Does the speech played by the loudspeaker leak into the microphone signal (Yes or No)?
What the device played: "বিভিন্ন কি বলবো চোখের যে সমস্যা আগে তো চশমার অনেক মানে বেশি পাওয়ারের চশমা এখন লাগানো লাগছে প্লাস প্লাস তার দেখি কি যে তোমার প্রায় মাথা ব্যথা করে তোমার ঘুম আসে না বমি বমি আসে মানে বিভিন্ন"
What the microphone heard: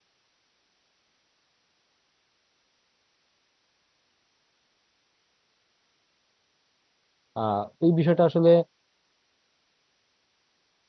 No